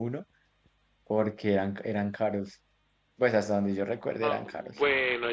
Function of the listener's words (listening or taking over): taking over